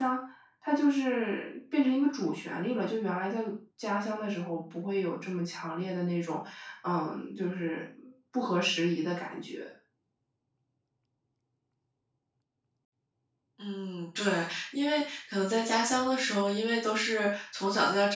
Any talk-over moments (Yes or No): No